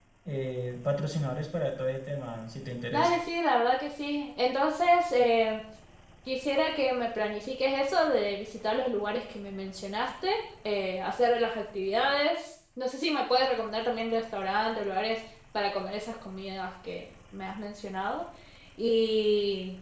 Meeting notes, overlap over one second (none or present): none